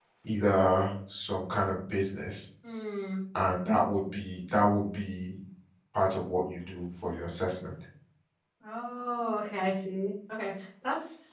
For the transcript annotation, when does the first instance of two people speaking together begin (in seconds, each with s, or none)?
none